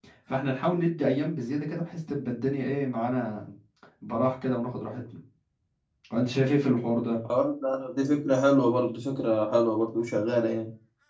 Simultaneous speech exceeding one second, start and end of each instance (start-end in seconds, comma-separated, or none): none